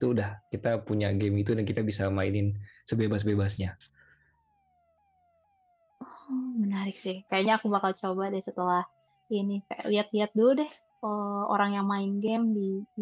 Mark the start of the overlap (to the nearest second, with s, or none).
none